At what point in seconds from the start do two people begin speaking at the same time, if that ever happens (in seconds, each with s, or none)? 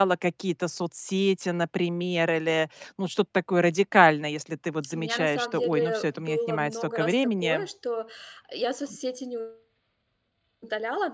4.9 s